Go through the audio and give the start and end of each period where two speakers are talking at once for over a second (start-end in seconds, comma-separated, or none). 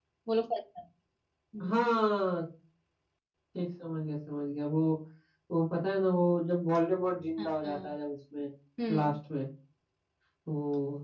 none